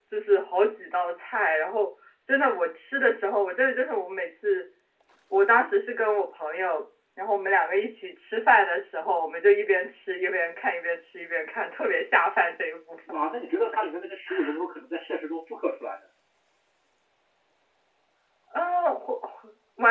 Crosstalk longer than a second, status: none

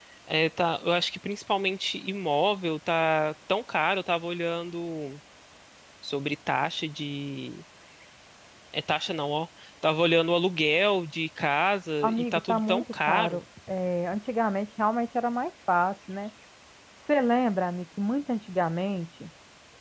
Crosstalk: present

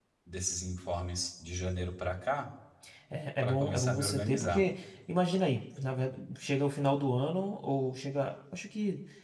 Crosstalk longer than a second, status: present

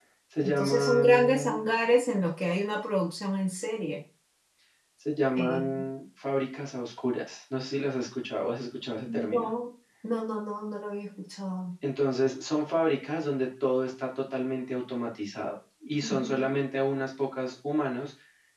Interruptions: present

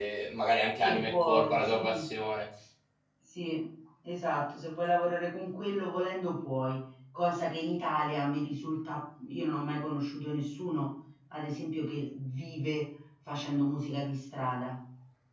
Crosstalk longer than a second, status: present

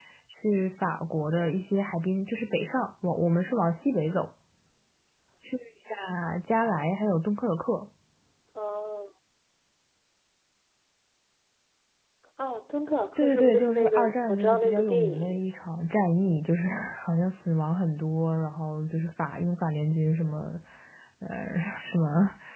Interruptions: present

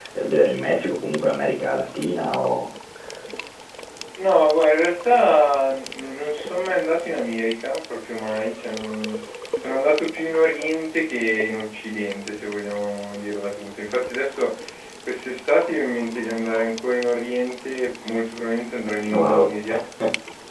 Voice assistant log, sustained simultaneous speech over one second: none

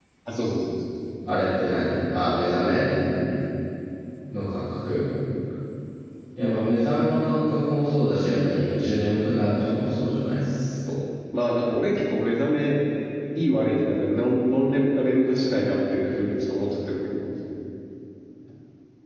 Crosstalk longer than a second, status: none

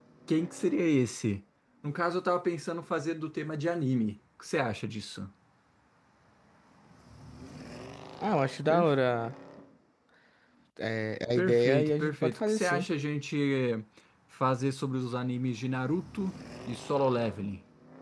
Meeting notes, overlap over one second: present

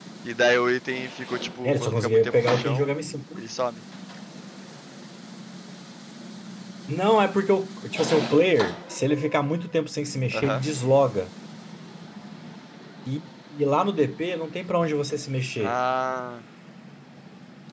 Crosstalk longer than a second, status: present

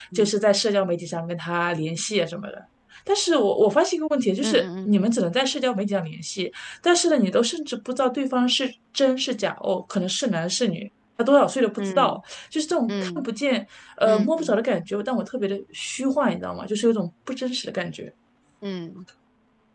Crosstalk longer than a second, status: none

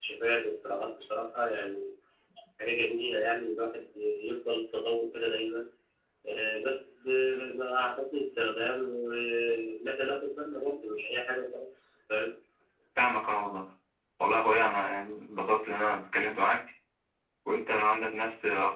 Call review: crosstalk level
none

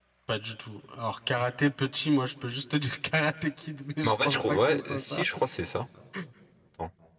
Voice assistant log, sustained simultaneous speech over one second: present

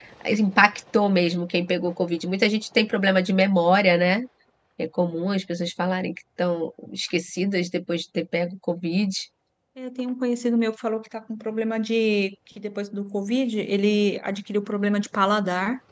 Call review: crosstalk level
none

